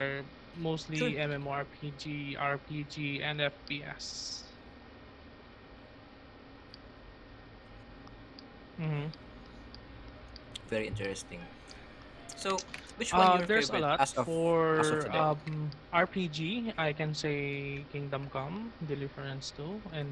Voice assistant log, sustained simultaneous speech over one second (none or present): present